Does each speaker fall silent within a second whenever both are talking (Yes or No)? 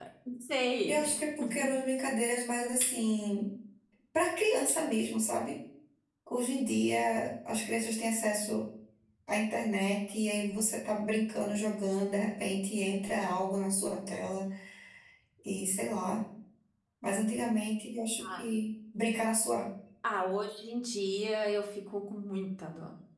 Yes